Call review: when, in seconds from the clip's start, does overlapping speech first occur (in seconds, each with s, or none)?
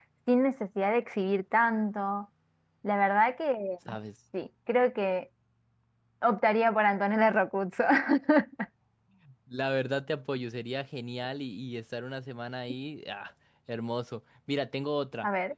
none